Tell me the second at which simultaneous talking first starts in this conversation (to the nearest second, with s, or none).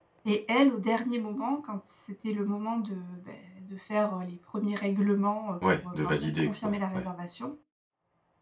6 s